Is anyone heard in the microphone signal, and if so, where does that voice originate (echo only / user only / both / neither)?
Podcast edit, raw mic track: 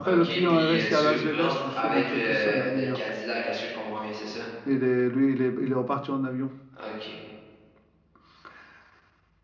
both